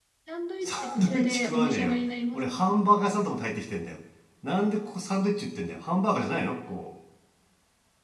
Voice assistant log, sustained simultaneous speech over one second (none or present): present